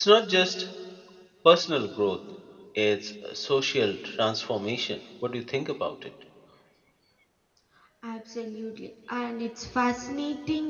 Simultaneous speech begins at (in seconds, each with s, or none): none